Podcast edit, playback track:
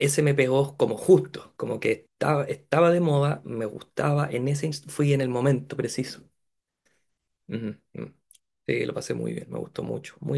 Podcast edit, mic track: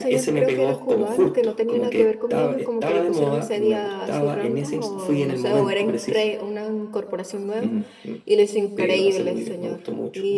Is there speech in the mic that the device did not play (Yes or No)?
Yes